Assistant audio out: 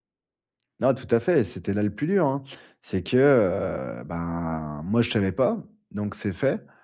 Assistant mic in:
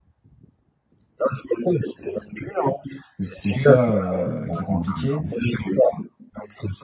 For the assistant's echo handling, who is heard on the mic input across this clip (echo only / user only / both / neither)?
both